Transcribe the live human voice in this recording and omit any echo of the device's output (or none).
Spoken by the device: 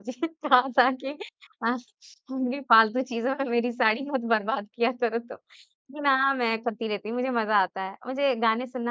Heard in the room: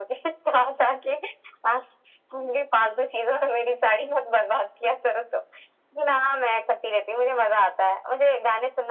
none